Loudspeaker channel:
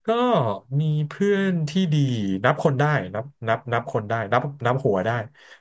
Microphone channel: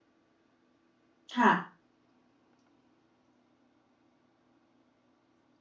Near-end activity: present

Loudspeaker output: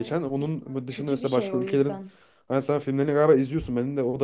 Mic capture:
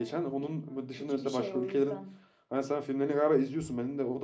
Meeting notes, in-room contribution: none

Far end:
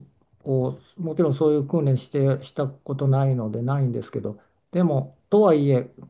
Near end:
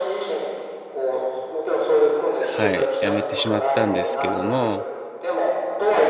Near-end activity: present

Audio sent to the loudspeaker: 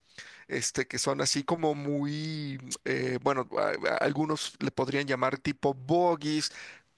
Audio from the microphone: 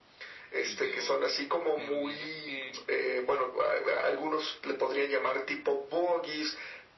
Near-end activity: present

